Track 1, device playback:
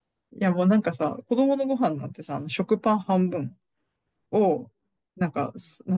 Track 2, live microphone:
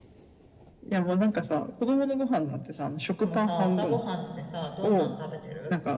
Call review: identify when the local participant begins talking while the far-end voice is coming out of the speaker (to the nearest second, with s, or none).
3 s